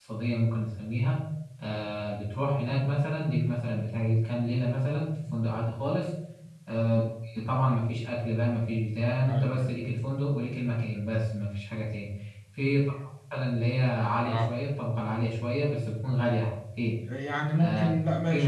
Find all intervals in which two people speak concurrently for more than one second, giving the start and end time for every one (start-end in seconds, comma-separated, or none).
none